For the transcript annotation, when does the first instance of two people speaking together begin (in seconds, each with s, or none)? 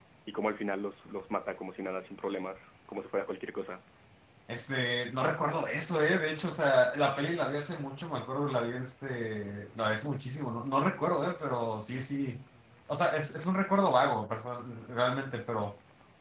none